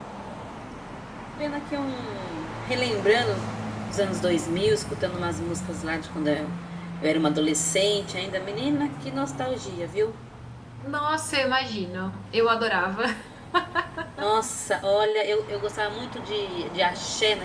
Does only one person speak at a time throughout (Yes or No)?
Yes